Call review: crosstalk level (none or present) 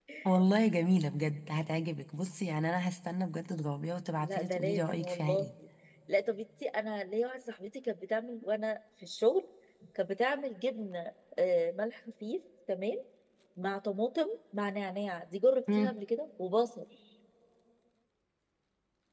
present